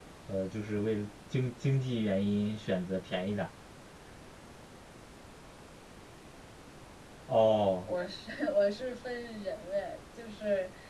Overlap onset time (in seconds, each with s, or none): none